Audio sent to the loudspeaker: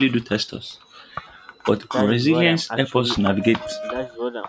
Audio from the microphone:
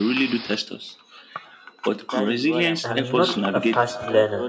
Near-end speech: present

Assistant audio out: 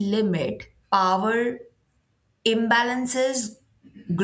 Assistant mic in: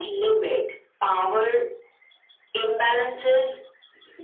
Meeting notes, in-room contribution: none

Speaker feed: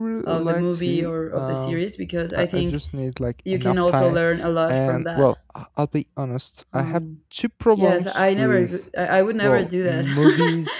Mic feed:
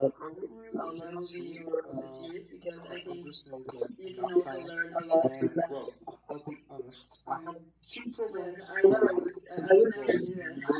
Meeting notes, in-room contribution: none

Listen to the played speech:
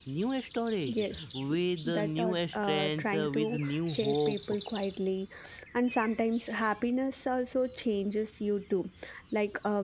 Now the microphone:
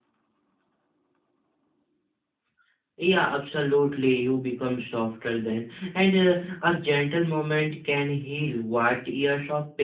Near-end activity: present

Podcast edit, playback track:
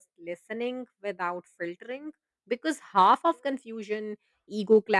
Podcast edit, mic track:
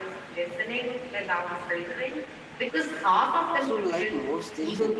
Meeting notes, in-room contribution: present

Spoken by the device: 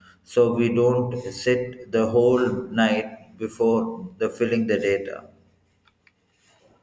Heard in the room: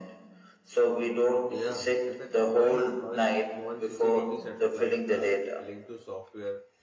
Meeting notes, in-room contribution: present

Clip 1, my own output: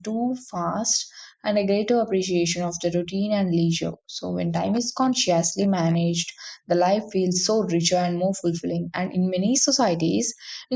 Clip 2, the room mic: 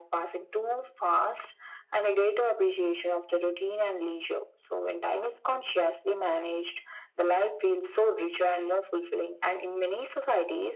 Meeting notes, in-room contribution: none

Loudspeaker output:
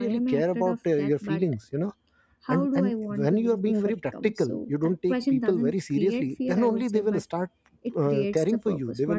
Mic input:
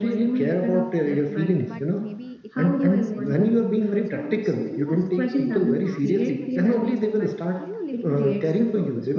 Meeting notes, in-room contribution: present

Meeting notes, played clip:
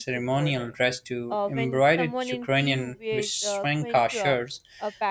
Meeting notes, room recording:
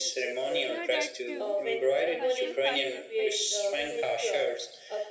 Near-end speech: present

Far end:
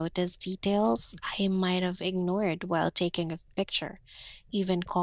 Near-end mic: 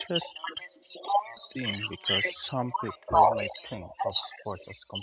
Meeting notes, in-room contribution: present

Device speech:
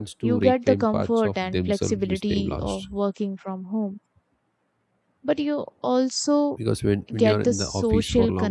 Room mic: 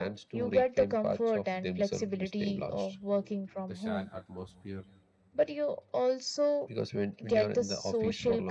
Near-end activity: present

